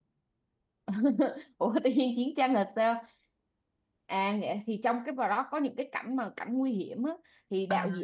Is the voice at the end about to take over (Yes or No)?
No